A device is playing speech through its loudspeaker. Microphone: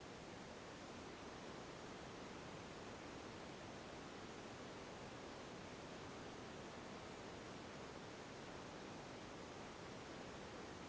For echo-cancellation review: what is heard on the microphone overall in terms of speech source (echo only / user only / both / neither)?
neither